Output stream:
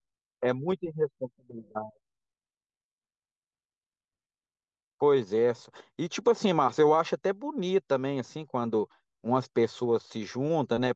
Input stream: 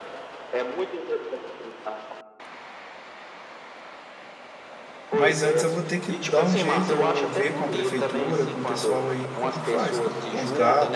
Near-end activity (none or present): present